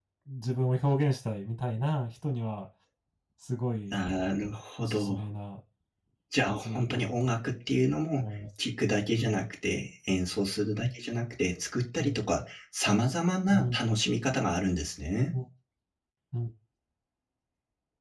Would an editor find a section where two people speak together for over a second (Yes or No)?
Yes